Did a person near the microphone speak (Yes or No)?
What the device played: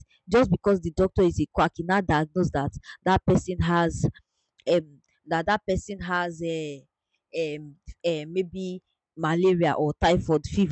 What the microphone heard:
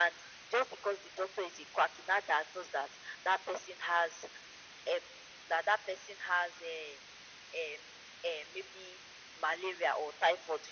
No